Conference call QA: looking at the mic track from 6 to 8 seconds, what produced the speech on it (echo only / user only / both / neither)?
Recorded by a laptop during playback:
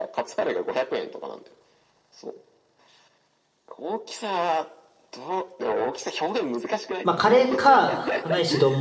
both